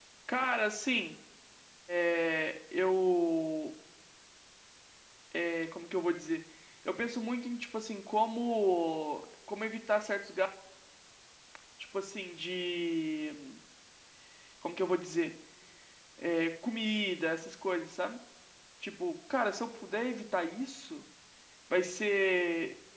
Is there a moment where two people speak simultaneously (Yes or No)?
No